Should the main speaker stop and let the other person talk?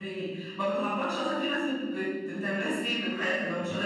Yes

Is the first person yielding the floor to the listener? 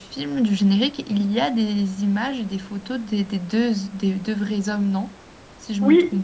Yes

